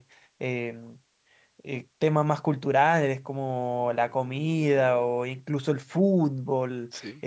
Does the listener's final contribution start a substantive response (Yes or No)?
No